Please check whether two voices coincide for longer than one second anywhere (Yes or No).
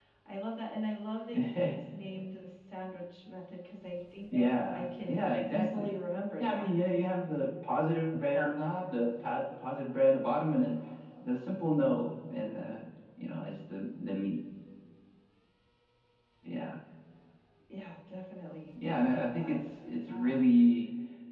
Yes